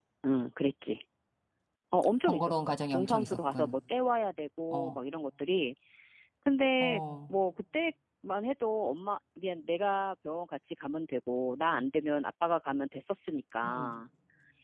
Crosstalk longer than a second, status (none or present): present